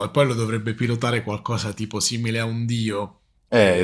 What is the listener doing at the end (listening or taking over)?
taking over